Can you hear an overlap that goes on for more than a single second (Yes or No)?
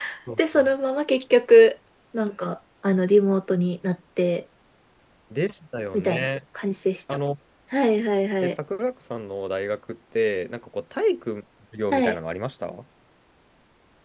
No